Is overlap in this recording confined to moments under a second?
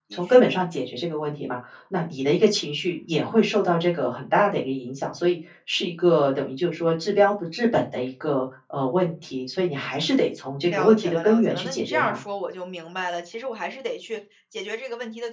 No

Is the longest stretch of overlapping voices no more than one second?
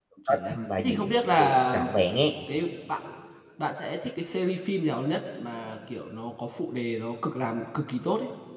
No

